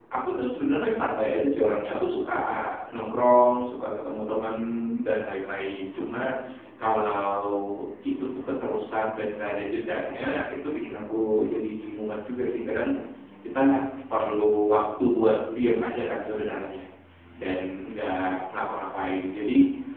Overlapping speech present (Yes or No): No